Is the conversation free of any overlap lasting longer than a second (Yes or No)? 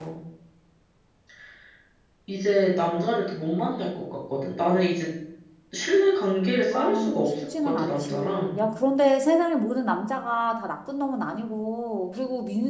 No